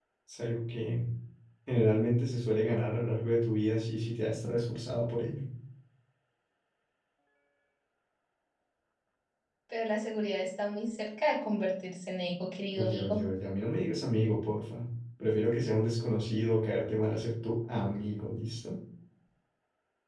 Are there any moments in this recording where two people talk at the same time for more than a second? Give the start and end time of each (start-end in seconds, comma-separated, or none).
none